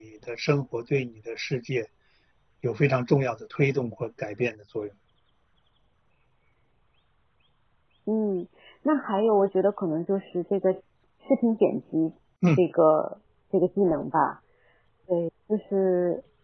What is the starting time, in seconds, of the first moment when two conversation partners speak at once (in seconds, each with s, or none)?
none